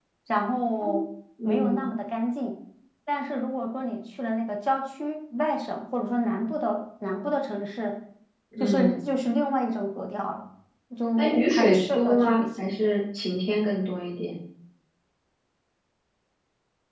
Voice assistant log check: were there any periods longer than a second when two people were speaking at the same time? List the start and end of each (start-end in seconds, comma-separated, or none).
11.2-12.8